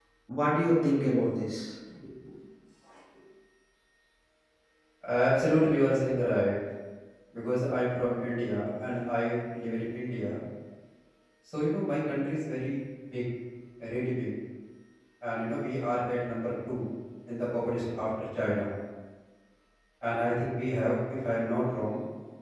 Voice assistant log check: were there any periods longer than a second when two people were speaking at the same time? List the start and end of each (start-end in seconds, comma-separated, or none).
none